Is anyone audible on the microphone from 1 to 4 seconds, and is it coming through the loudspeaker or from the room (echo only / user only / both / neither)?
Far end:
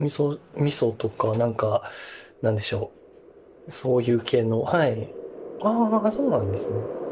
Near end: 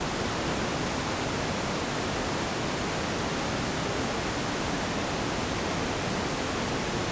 neither